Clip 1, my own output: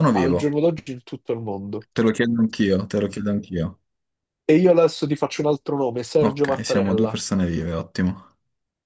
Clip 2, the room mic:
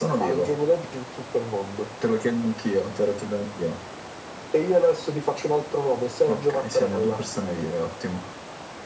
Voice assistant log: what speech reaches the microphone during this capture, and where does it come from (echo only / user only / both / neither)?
echo only